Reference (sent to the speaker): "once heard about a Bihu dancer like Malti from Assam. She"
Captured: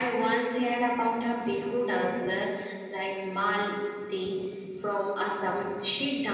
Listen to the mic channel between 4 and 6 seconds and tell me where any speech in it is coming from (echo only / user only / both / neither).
echo only